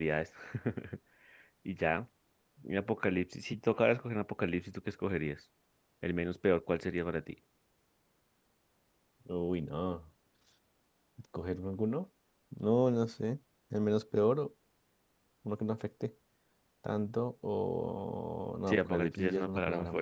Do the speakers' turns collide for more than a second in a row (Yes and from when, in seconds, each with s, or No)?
Yes, from 18.7 s